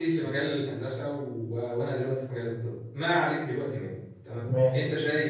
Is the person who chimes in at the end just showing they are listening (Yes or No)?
Yes